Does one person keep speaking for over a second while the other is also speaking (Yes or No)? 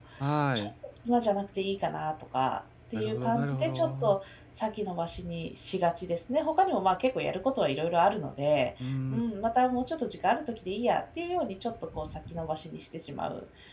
Yes